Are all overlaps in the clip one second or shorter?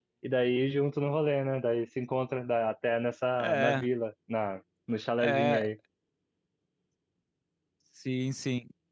Yes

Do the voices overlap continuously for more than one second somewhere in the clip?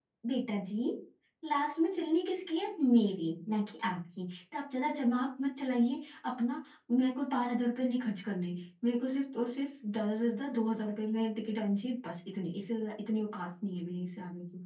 No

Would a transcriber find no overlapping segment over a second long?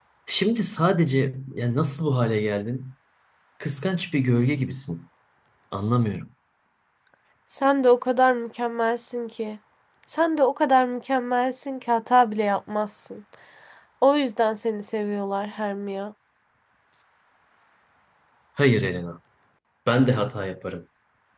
Yes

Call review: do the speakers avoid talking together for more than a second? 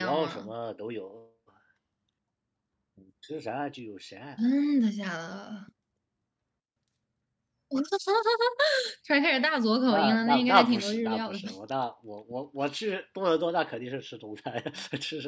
No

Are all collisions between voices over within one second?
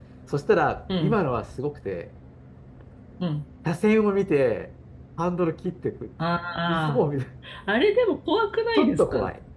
Yes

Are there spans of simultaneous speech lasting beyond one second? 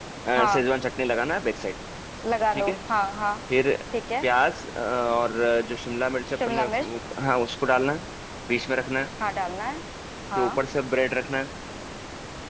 No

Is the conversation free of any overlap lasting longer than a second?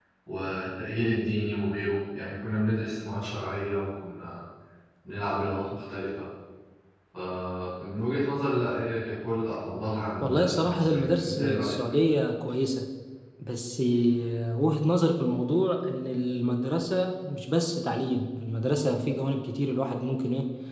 No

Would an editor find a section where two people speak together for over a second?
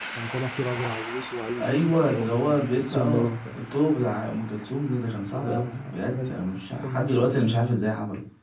Yes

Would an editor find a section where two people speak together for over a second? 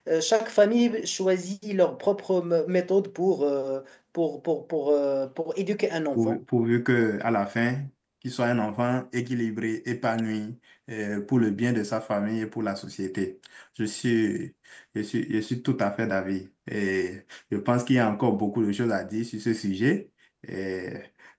No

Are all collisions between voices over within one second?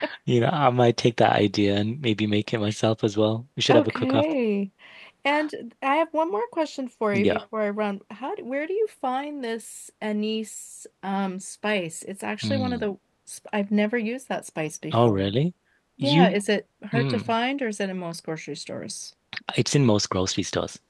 Yes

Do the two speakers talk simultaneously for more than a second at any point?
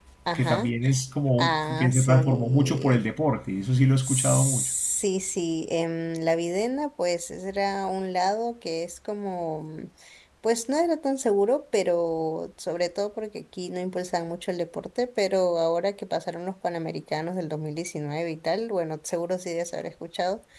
Yes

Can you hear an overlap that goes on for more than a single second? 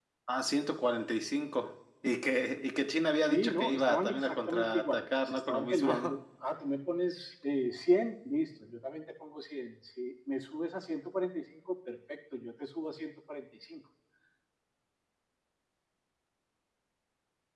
Yes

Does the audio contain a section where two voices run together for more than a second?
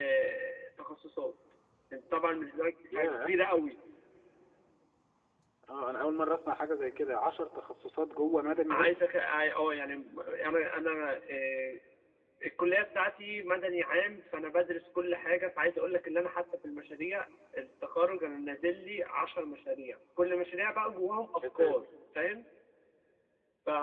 No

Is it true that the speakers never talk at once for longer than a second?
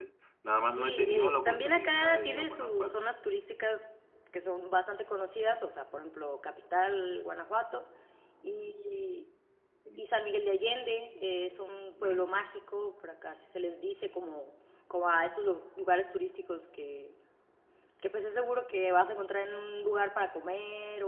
No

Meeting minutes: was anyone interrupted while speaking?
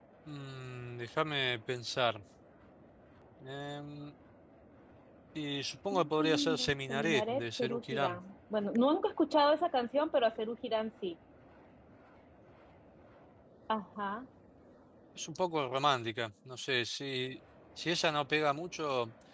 Yes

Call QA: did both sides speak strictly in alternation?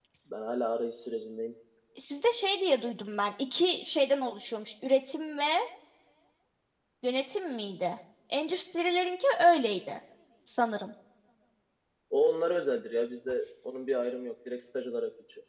Yes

